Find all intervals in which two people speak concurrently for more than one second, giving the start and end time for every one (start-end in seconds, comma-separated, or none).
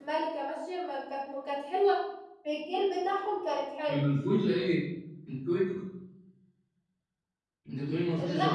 none